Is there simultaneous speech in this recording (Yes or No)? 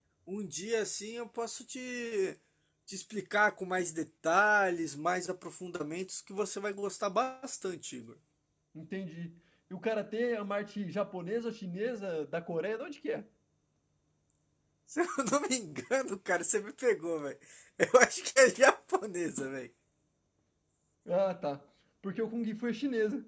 No